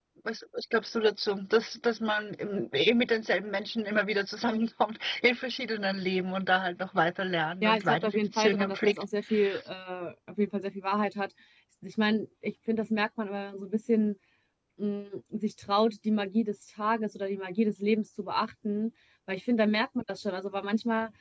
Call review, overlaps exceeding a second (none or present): present